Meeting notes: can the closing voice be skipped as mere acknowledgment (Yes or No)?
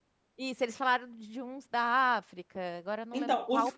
No